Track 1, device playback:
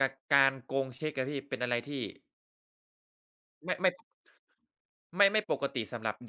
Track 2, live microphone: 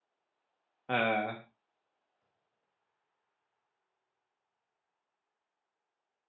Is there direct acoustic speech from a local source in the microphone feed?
Yes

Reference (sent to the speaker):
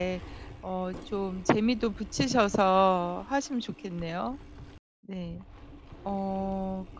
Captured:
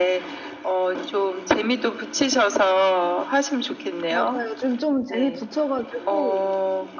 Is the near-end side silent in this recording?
No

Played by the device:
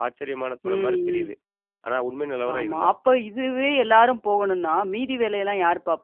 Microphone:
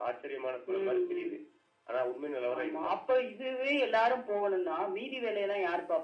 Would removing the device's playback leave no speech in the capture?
Yes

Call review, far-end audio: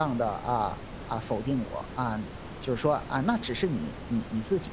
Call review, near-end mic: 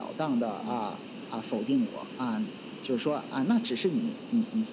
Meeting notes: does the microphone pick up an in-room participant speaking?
Yes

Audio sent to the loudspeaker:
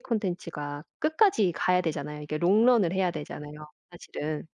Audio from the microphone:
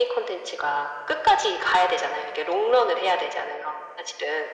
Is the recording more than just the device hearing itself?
No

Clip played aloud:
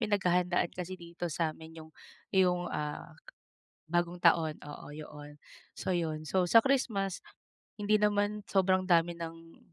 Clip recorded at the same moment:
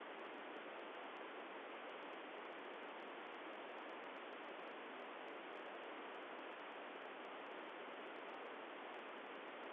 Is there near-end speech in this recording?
No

